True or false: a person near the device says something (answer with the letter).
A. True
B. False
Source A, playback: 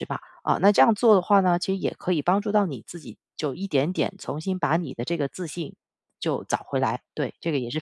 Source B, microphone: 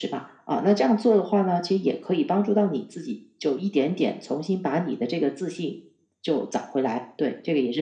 B